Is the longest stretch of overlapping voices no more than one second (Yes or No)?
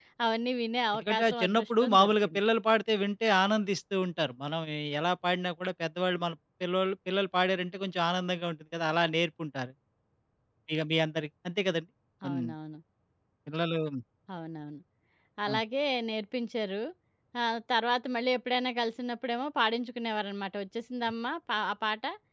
No